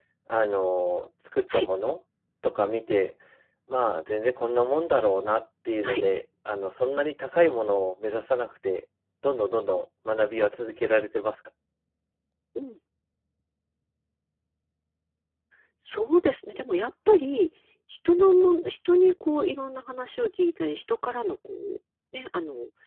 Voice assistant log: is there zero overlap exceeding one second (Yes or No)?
Yes